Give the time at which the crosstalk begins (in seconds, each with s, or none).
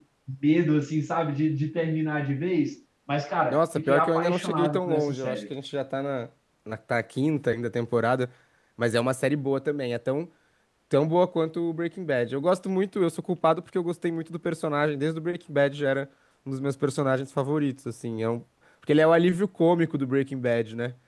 3.5 s